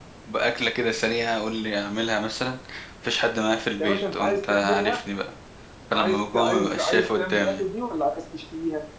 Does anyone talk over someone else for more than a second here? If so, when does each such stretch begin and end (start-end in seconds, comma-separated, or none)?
3.8-5.0, 5.9-7.6